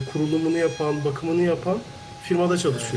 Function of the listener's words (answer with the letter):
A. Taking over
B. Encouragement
A